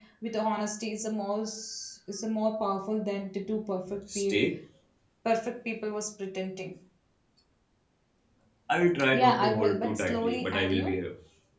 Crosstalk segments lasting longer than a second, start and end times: 9.2-10.9

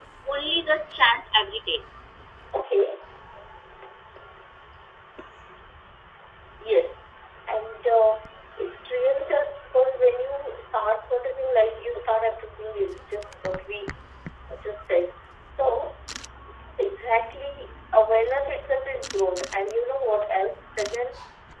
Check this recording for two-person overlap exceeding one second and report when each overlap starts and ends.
none

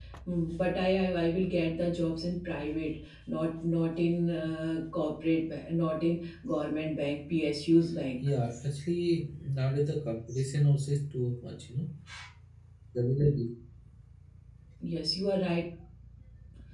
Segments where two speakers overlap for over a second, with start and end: none

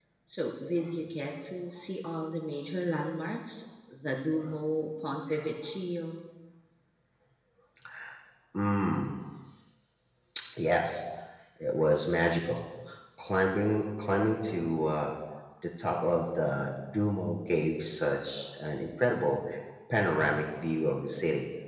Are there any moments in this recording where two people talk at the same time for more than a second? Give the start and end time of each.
none

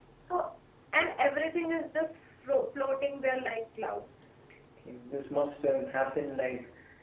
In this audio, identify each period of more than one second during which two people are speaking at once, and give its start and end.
none

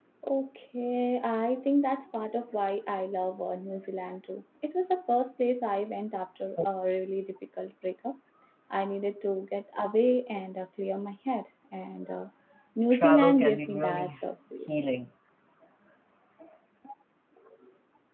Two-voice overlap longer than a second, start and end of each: 12.9-14.1

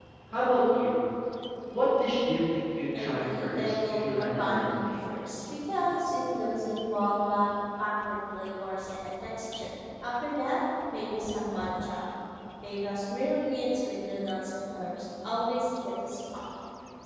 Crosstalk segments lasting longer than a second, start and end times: 3.0-4.9

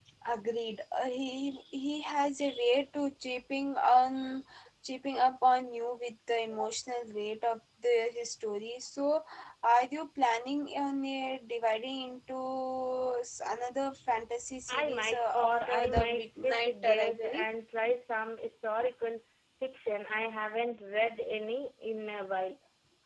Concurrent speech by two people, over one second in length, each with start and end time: 14.7-17.4

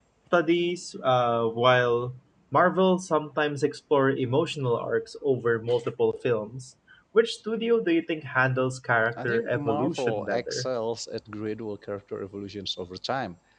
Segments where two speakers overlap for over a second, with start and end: 9.1-10.7

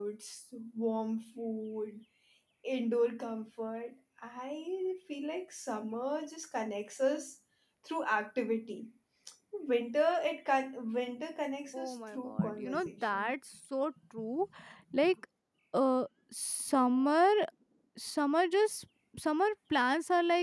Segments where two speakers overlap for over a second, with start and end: 11.7-13.3

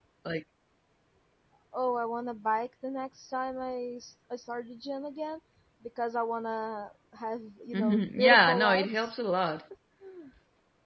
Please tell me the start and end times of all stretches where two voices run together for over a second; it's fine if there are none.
7.7-9.2

